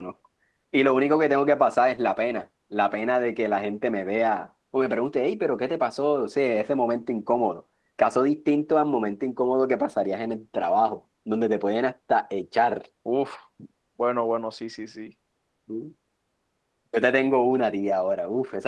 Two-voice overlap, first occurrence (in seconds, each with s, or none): none